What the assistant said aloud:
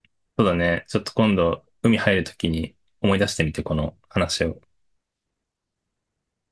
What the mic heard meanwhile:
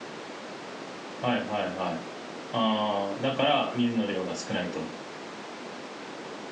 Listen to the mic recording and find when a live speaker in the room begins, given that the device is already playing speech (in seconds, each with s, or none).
1.2 s